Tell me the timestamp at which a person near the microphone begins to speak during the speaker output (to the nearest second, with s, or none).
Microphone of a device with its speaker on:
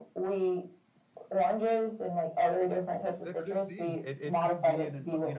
3 s